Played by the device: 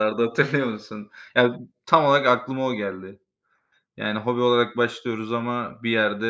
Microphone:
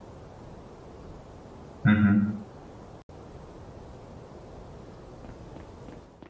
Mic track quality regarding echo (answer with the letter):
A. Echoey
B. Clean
B